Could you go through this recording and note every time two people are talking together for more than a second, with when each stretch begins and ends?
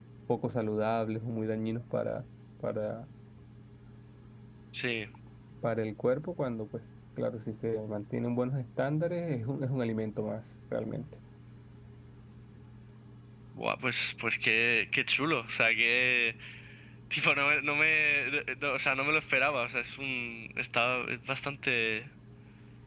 none

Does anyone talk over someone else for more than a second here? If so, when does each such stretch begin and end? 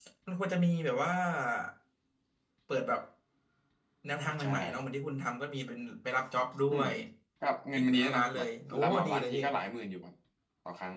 7.8-9.4

